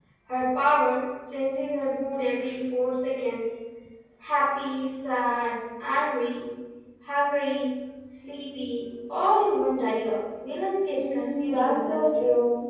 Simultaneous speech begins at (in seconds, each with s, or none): 11.0 s